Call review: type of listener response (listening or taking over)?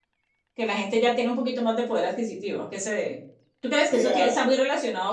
listening